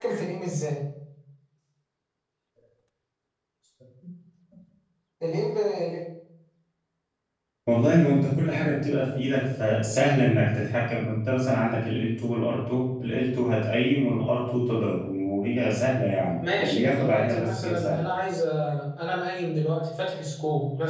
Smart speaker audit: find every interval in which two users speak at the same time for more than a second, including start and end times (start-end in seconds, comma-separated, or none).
16.4-18.0